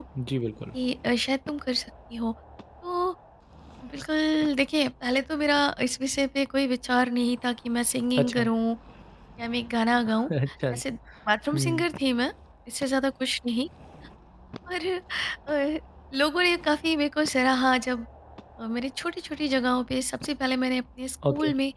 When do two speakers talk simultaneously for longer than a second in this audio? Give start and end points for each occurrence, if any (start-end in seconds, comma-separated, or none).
none